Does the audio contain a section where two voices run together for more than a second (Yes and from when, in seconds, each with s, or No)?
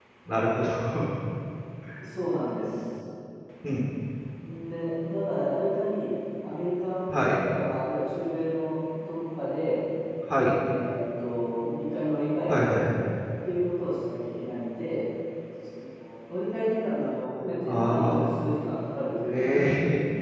No